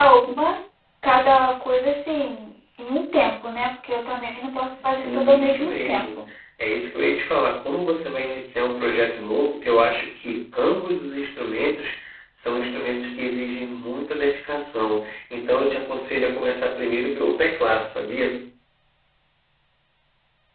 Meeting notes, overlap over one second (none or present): present